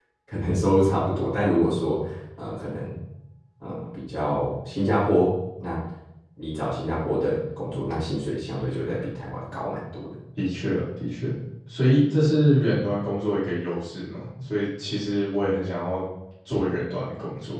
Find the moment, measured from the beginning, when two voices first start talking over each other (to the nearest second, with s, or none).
none